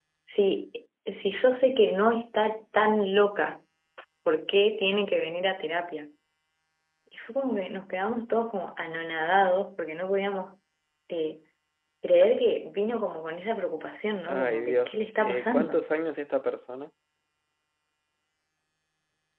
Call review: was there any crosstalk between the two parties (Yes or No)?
Yes